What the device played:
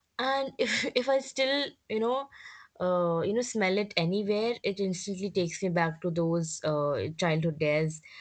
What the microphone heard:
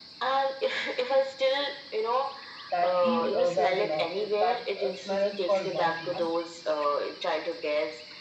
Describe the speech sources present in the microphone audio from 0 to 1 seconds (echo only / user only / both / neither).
echo only